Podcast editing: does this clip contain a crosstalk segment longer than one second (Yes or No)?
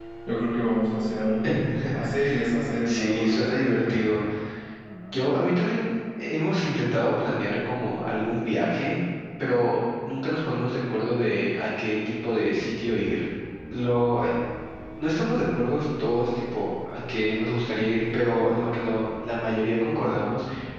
Yes